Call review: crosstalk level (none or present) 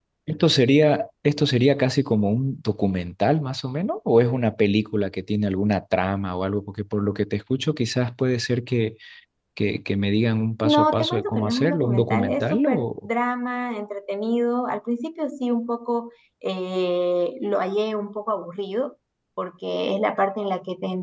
present